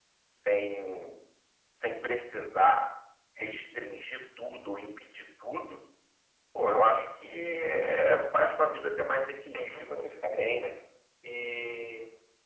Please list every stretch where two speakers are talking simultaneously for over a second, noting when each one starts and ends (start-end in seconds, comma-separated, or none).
9.5-10.7